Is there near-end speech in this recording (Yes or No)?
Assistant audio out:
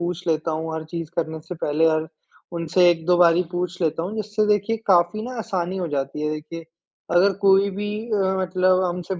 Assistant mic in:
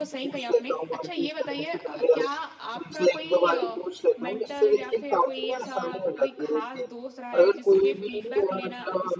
Yes